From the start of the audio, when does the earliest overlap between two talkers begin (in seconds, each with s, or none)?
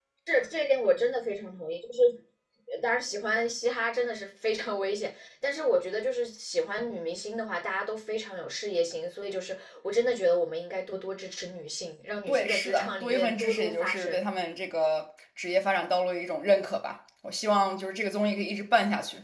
12.3 s